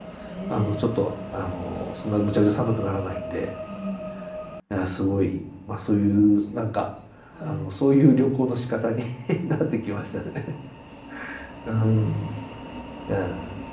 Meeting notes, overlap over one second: none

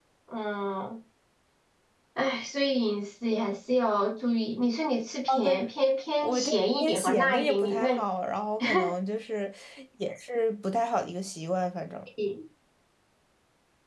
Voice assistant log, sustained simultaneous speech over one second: present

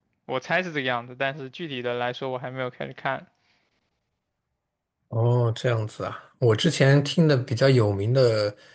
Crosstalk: none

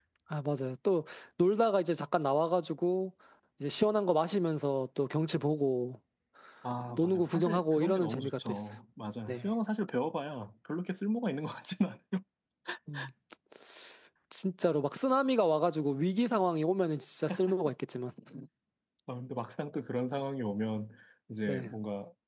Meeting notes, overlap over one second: present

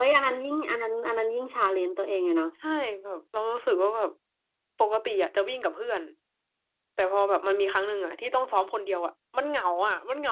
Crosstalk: none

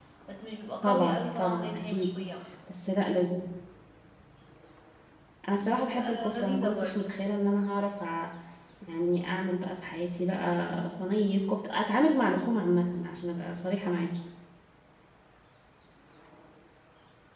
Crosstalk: present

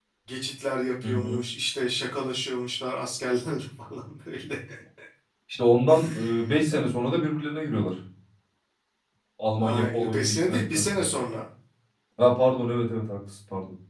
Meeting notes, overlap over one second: present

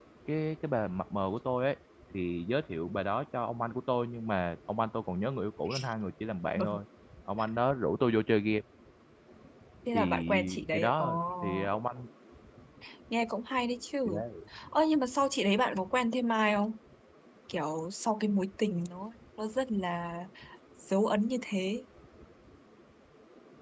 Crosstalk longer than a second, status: present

